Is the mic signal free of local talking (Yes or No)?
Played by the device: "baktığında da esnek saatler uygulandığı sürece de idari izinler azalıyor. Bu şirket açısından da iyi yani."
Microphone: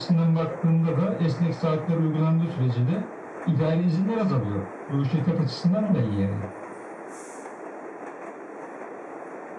Yes